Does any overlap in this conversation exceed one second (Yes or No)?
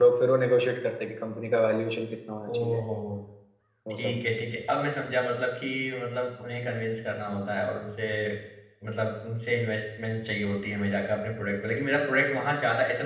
No